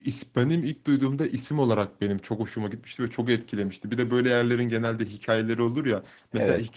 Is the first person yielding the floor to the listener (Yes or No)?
No